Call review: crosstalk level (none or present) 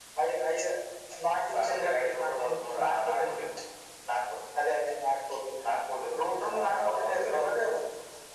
present